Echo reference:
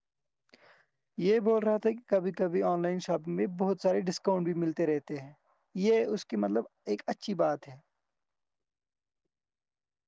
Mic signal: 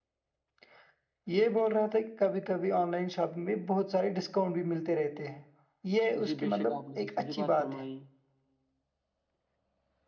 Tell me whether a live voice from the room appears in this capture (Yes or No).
Yes